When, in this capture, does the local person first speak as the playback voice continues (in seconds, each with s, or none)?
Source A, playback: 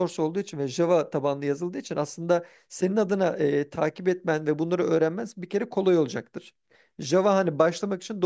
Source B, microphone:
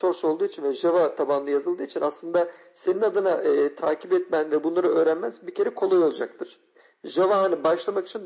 none